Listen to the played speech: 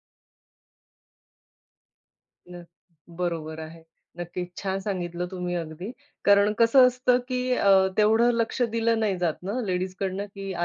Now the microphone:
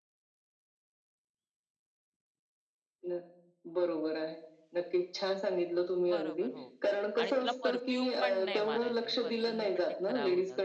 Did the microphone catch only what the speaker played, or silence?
No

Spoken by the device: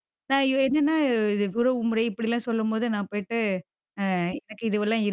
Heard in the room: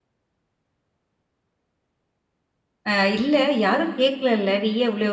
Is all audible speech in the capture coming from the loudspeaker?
No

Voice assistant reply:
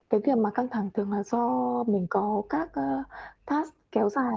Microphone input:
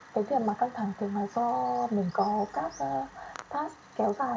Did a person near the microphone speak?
No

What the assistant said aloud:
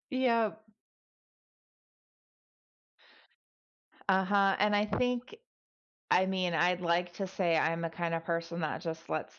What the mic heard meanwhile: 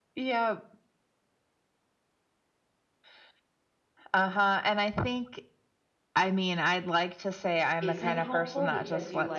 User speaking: Yes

